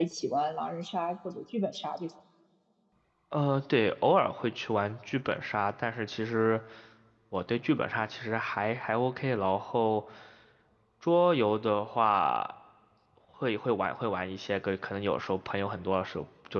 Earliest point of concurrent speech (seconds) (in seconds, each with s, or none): none